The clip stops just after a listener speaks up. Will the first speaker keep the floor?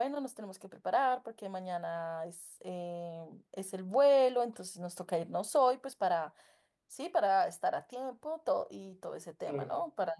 Yes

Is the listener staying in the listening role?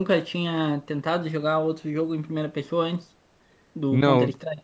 No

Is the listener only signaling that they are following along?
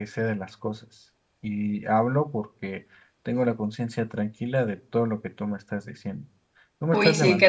No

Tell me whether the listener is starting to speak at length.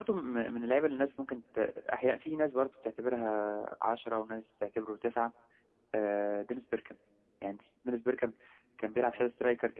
No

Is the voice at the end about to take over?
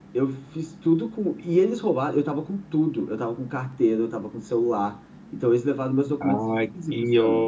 Yes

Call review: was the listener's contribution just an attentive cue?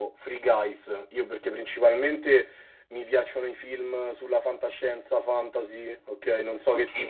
No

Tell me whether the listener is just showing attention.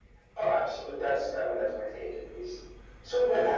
Yes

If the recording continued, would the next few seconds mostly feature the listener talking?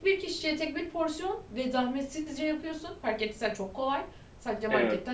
No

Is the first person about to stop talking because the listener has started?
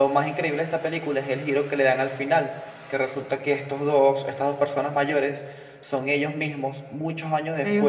No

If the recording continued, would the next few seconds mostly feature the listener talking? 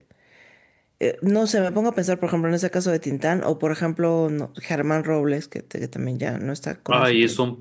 Yes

